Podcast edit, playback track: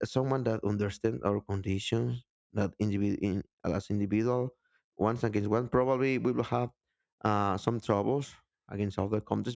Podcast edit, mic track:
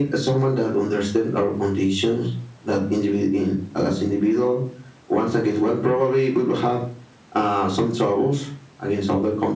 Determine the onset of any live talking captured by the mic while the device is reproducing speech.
none

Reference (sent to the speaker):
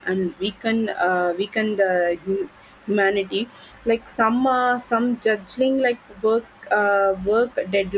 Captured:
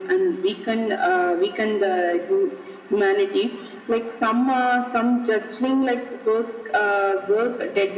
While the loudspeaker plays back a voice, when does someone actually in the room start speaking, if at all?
none

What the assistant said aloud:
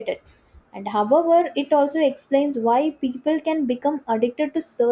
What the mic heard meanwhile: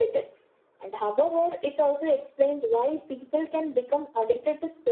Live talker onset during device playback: none

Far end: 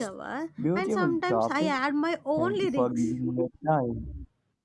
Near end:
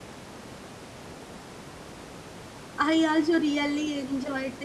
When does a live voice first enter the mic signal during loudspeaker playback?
2.8 s

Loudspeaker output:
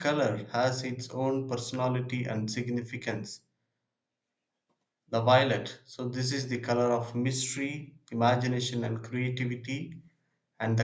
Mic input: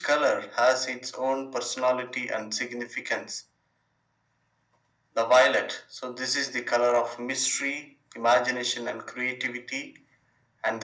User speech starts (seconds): none

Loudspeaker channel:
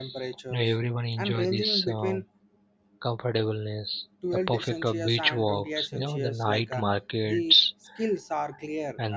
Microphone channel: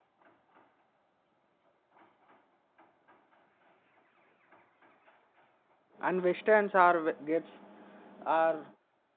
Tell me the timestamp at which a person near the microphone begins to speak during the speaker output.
6.1 s

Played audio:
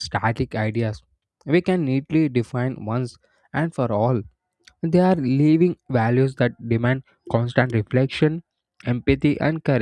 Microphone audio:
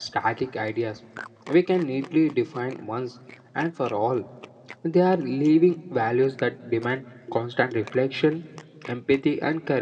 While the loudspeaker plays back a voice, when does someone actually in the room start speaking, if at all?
none

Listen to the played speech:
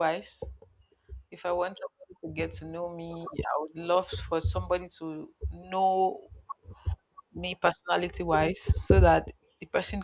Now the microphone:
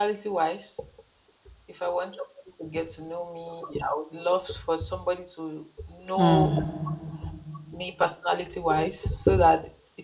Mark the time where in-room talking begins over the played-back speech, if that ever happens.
6.2 s

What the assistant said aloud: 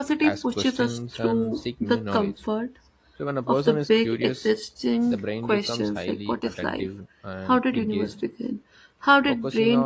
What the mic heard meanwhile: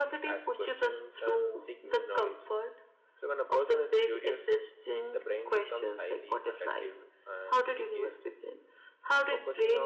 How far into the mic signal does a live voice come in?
none

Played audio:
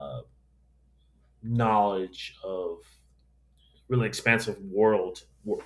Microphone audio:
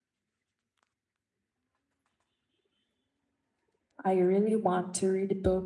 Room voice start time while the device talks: 4.0 s

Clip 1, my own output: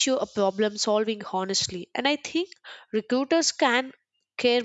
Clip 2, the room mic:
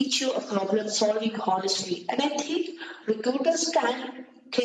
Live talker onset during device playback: none

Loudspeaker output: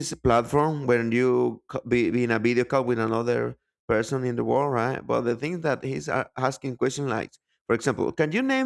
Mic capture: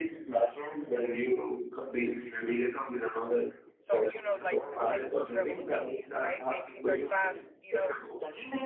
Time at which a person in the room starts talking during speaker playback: 3.8 s

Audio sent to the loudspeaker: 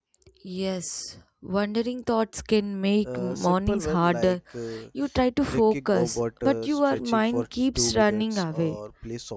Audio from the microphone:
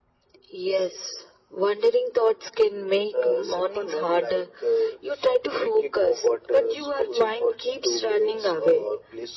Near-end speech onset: none

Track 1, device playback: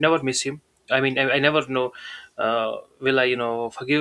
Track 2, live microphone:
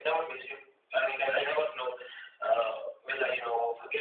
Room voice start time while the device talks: none

